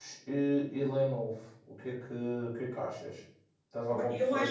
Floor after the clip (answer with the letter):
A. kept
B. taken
B